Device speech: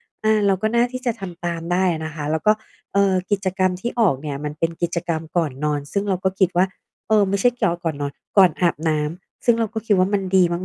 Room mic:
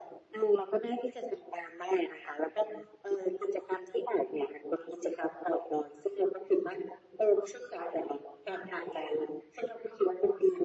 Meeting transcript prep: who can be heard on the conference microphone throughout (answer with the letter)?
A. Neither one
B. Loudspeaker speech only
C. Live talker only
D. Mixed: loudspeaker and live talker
B